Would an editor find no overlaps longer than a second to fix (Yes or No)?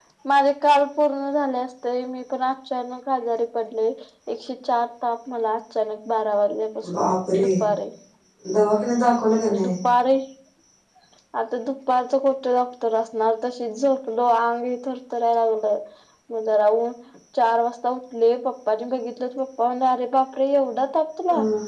Yes